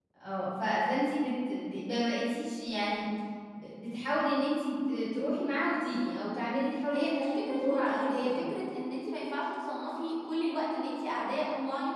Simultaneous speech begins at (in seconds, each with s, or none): 6.9 s